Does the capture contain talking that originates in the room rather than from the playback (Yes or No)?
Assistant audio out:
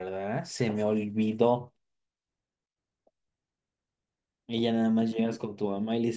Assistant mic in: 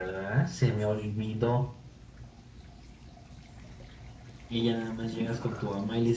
No